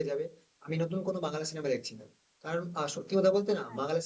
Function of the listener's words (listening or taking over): listening